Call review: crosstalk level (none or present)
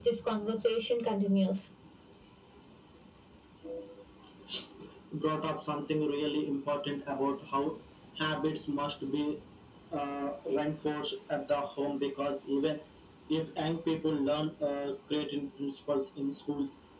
none